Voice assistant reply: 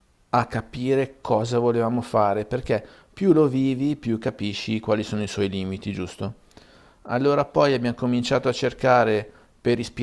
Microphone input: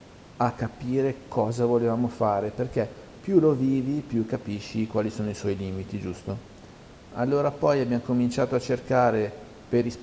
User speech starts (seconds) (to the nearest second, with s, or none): none